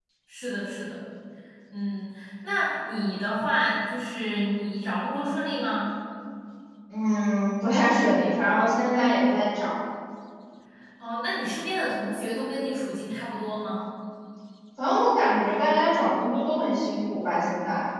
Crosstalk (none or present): none